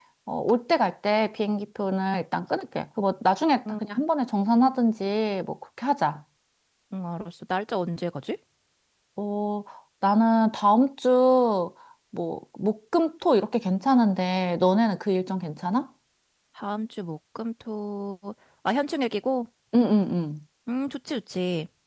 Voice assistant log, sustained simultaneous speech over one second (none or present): none